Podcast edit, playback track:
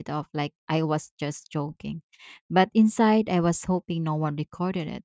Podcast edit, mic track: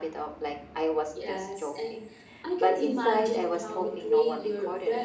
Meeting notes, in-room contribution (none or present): present